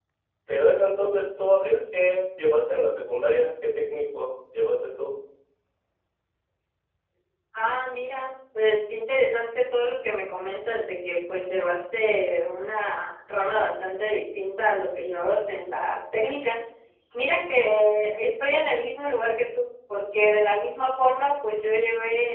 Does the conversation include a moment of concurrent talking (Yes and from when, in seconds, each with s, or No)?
No